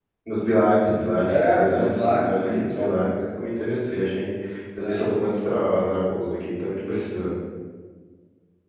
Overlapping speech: Yes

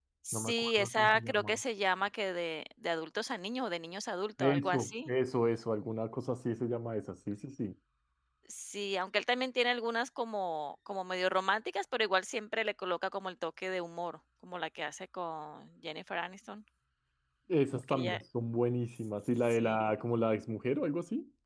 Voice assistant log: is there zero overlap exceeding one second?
No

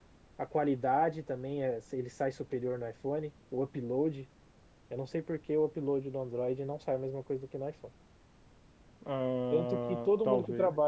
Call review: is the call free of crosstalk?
No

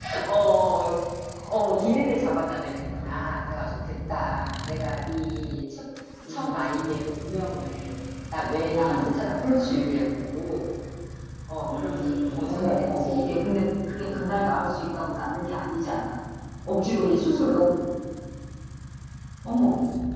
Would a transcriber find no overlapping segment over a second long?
No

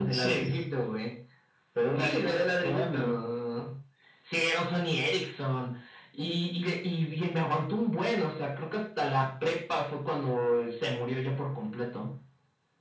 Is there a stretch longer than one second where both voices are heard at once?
Yes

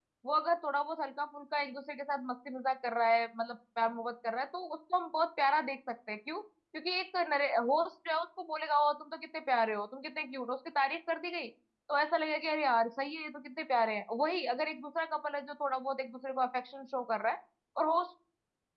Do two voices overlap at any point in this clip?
No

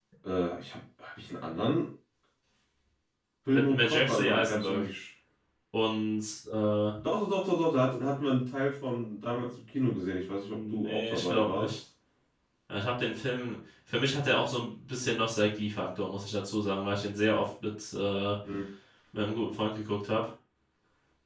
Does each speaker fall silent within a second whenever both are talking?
No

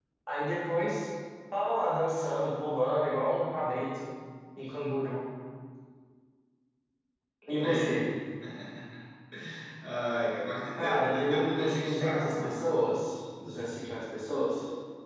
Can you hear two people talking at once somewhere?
Yes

